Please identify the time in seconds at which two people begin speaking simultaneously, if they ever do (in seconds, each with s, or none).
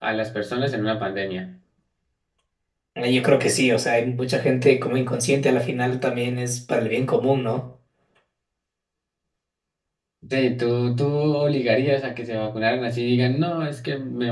none